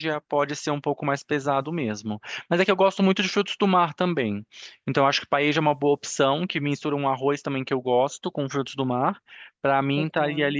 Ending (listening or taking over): listening